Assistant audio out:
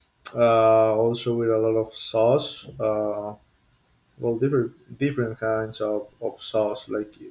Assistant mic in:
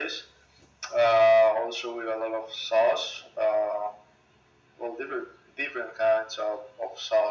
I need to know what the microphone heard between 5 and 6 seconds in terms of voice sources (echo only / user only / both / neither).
echo only